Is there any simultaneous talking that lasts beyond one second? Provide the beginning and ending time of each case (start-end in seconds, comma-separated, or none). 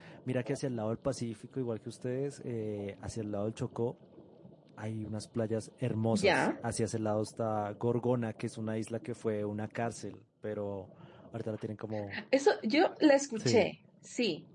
none